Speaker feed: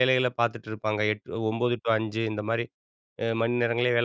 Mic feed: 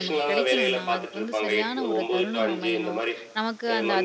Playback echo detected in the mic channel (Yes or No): Yes